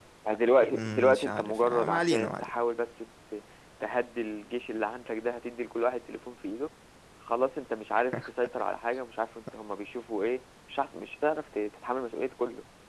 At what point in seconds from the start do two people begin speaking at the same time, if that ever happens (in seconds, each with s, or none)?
0.6 s